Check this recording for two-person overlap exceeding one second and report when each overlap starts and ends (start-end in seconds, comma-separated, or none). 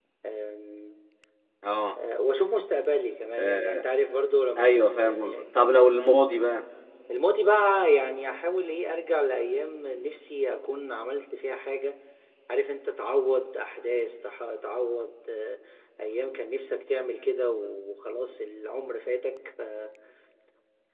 4.6-5.8